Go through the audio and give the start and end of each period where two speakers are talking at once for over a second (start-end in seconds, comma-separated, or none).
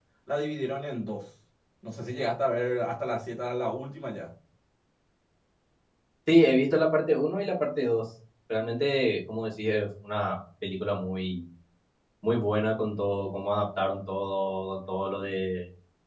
none